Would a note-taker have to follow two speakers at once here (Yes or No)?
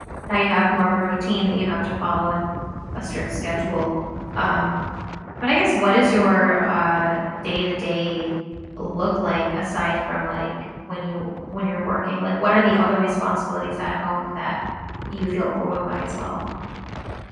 No